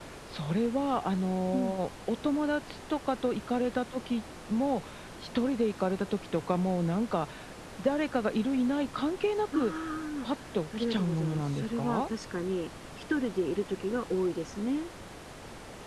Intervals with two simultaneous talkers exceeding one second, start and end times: 10.8-12.0

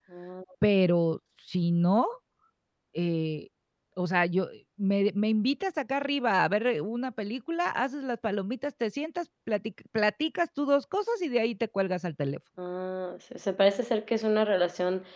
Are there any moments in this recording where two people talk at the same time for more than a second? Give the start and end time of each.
none

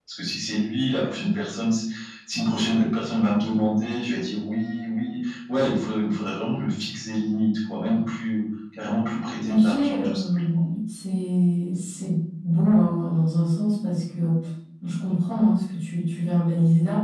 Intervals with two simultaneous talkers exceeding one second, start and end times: 9.4-10.6

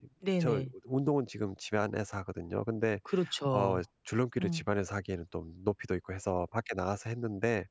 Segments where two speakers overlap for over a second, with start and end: none

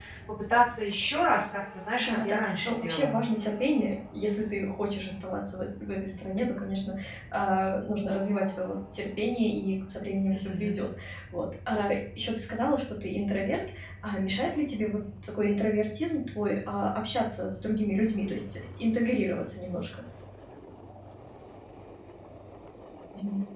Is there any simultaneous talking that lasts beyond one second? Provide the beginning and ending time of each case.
2.0-3.2

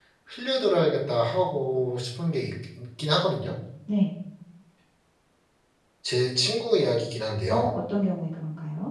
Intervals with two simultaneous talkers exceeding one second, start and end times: none

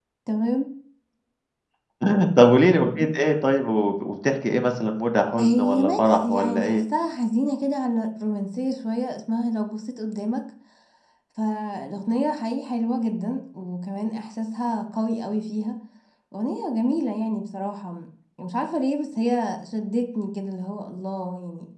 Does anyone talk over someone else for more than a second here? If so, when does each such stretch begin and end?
5.4-6.8

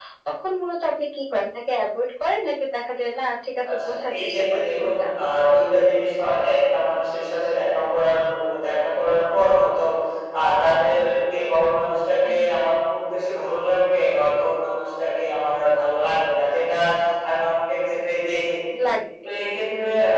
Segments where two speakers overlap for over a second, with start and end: 3.7-5.1

